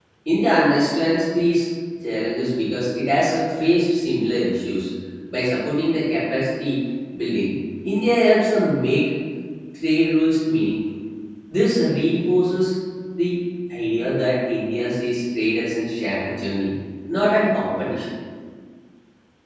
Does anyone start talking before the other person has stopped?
No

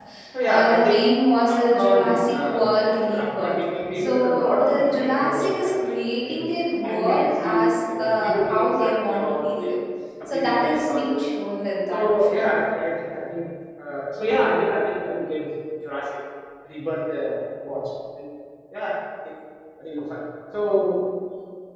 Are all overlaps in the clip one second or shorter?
No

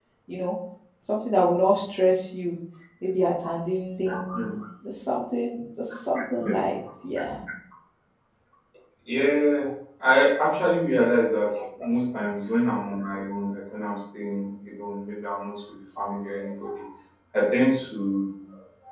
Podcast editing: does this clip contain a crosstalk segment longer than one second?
No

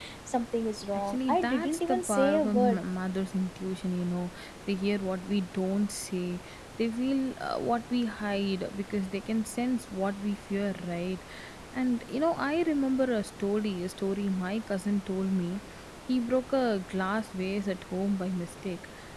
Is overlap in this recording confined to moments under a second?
No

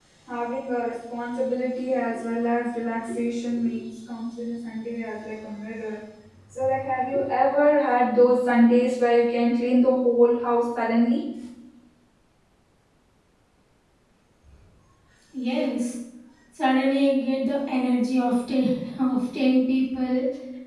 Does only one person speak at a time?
Yes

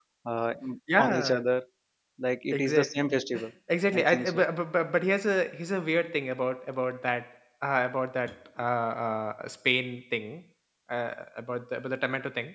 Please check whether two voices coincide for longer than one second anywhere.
No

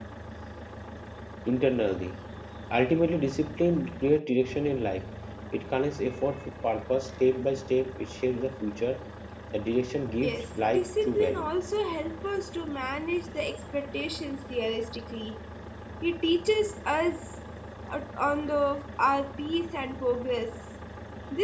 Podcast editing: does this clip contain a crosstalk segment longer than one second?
Yes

